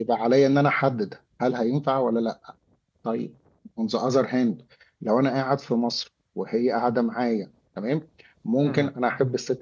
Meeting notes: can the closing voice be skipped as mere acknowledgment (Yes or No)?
Yes